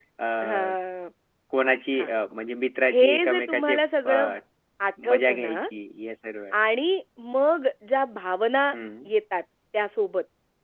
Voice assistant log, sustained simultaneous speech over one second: present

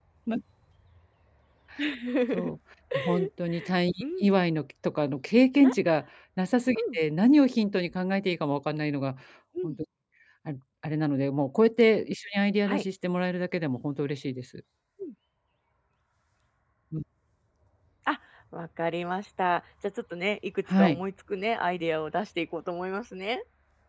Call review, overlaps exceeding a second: none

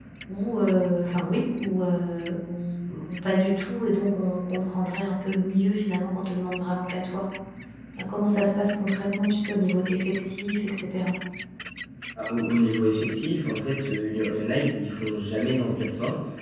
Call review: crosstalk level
none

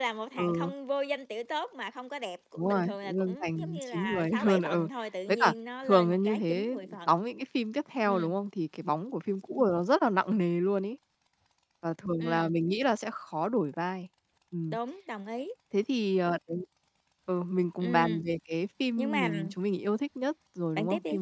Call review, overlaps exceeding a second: present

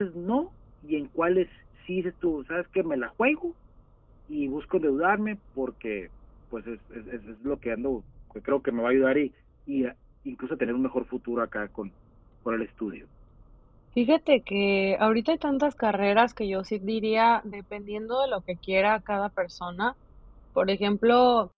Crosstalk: none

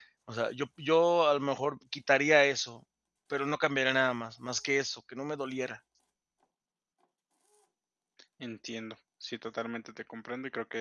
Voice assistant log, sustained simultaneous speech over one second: none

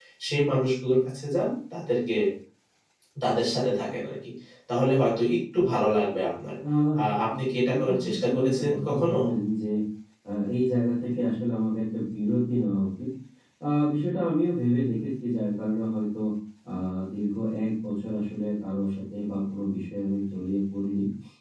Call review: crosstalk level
present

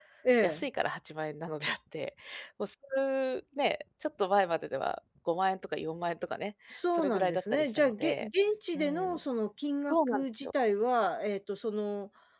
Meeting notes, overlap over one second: present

